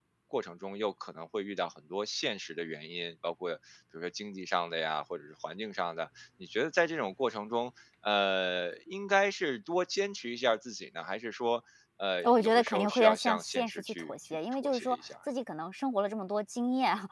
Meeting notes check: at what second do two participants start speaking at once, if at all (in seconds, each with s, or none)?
12.2 s